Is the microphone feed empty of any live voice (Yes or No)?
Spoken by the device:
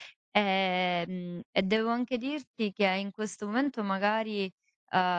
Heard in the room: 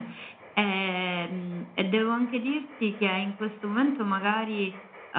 Yes